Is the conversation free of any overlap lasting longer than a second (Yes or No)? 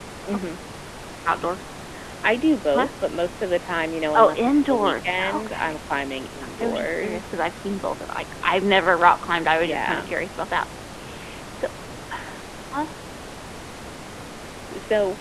No